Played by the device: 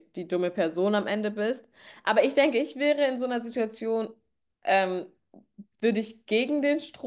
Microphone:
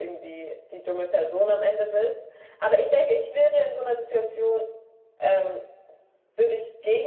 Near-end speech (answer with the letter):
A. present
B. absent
B